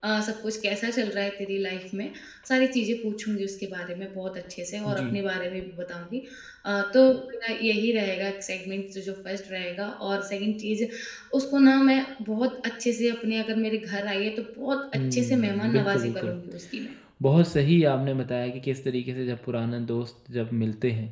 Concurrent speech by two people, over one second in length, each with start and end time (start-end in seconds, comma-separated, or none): 15.1-16.4